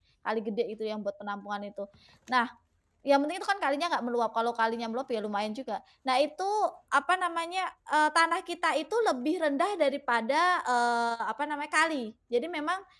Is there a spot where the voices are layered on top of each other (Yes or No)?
No